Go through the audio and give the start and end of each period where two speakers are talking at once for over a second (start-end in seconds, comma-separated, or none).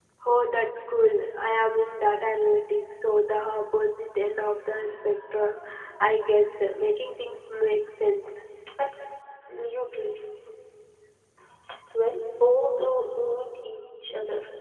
none